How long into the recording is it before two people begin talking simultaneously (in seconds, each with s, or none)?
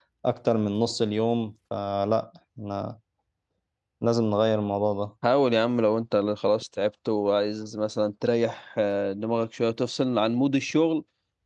none